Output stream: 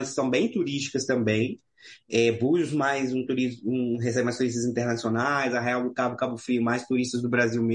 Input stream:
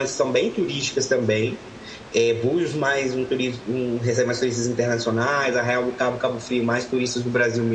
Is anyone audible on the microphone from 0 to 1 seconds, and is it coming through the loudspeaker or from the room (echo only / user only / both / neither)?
echo only